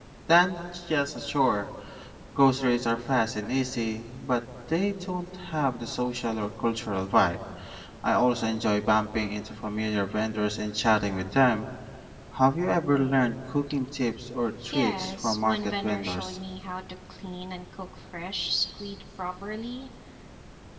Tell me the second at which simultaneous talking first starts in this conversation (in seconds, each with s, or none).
14.6 s